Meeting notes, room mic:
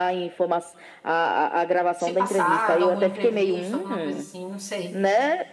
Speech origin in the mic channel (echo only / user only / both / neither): both